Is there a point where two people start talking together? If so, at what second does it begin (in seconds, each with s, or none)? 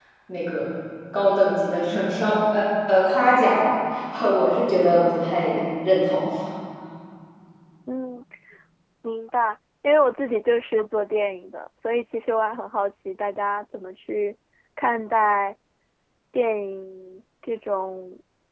none